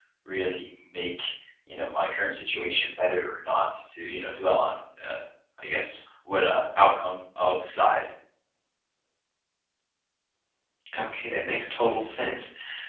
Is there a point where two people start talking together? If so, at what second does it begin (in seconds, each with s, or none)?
none